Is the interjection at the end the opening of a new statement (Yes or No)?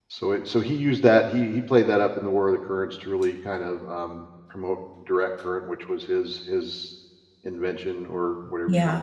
No